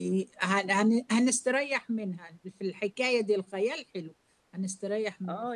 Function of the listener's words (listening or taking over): taking over